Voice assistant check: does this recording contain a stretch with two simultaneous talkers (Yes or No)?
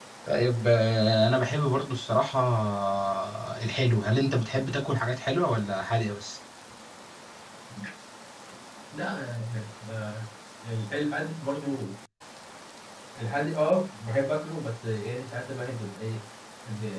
No